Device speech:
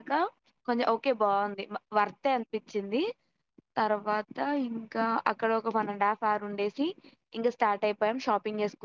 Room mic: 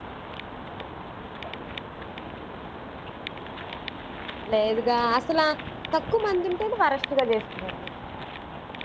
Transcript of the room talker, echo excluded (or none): లేదుగా అసలు ఆ ఎక్కువ మంది ఉంటే వరస్టుగా చేస్తారు